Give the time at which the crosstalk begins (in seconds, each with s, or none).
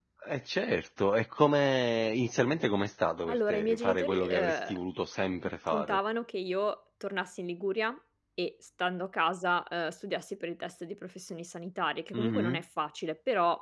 3.3 s